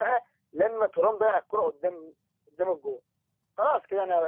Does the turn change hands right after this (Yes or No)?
Yes